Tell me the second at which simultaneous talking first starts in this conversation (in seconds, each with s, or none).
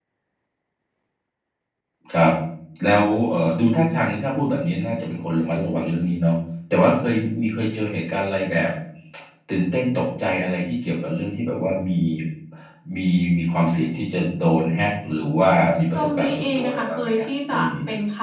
15.9 s